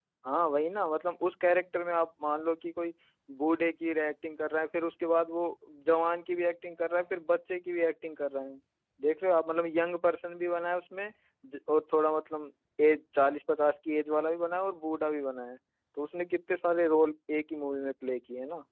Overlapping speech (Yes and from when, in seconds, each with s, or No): No